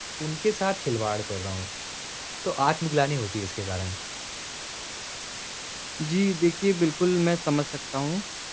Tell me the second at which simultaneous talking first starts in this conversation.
none

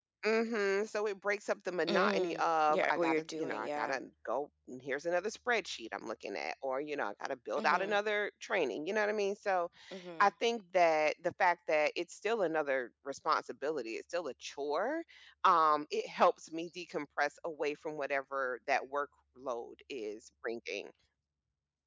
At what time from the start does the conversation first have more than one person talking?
1.9 s

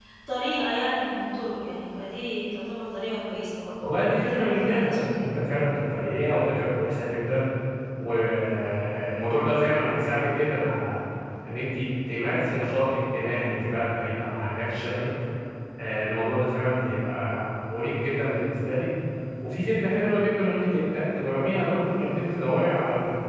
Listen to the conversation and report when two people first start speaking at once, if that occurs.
3.8 s

